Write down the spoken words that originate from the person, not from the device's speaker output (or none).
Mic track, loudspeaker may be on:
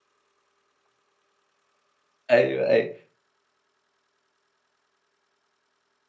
أيوه، أيوه.